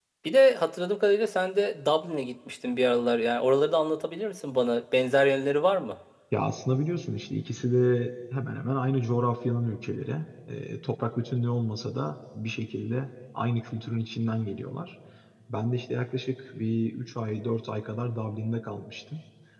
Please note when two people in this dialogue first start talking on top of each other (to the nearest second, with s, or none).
none